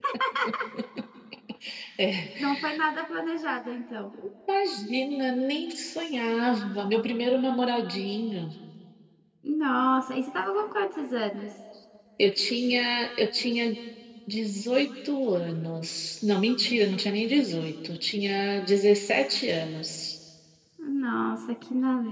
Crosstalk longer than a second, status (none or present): none